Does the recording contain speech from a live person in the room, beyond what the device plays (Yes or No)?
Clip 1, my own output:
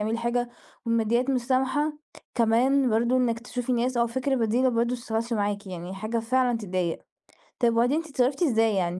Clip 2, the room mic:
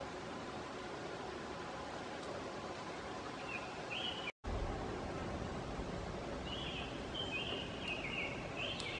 No